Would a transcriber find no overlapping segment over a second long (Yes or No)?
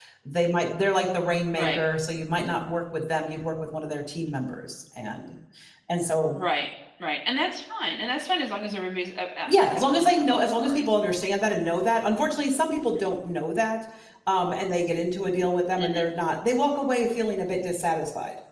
No